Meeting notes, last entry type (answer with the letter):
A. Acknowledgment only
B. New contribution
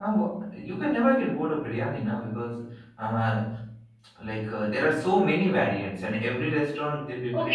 B